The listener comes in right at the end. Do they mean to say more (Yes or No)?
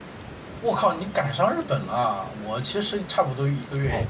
Yes